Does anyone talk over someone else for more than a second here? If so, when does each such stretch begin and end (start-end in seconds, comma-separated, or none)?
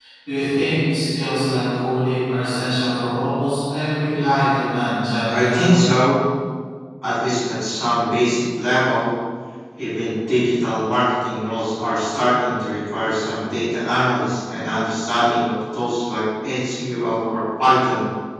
none